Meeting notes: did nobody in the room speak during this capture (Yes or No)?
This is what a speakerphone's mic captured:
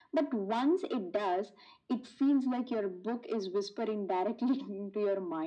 Yes